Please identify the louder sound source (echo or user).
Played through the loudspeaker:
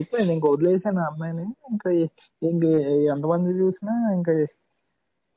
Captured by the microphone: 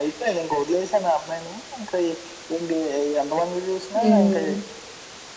user